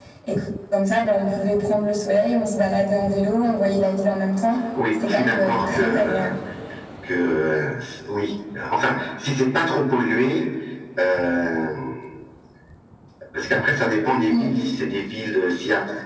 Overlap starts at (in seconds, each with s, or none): 5.0 s